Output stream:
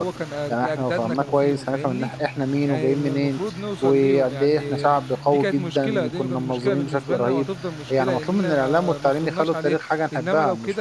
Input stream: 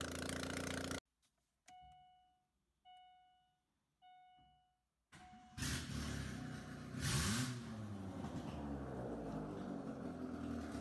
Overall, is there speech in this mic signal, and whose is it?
neither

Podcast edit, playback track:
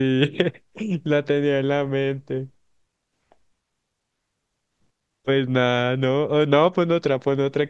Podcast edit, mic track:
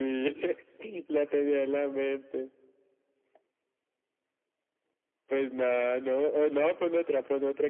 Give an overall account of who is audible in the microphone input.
echo only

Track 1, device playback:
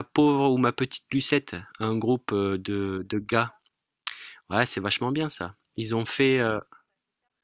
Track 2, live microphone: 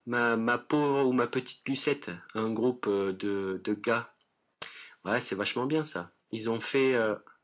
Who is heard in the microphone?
echo only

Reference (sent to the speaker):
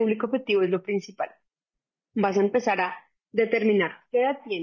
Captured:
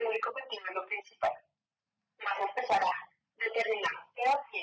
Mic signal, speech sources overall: echo only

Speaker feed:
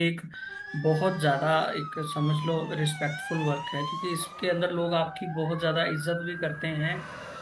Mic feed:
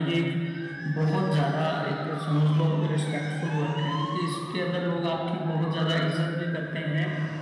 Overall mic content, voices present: echo only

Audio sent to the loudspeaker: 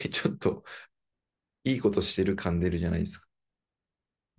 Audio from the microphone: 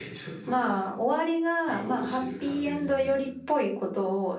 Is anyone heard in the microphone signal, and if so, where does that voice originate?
both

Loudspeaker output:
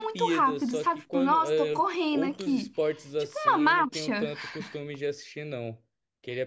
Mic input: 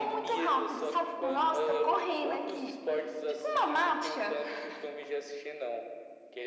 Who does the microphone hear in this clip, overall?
echo only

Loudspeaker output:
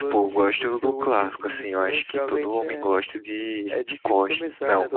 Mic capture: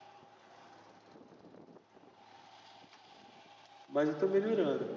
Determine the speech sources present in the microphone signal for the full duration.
user only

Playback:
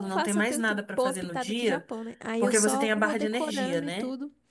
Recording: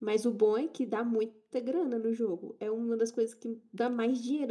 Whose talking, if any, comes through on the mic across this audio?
user only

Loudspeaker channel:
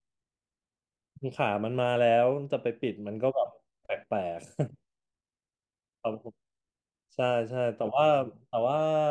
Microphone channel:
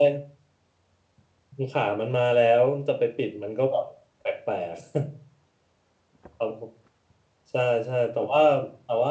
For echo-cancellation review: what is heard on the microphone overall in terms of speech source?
echo only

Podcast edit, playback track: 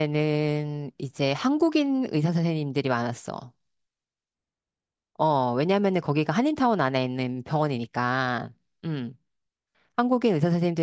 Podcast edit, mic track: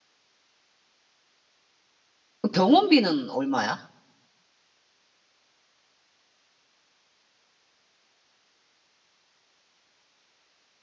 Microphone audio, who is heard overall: user only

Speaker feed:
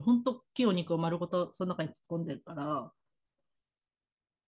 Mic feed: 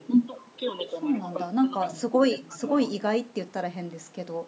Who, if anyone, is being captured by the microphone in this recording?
both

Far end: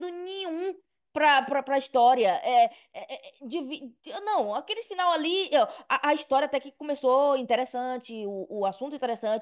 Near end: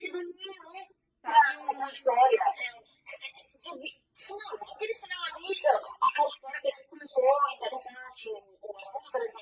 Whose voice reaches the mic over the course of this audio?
both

